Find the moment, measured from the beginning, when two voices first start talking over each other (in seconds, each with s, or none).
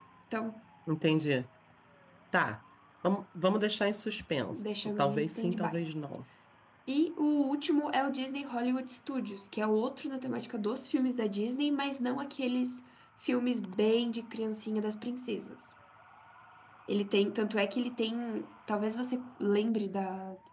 4.5 s